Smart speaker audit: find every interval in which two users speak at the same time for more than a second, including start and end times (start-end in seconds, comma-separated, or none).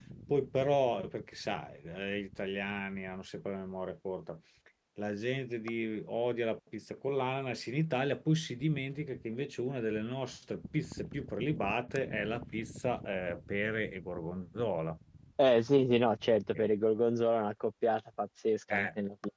none